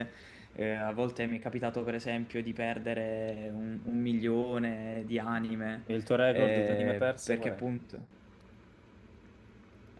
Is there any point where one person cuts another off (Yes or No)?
Yes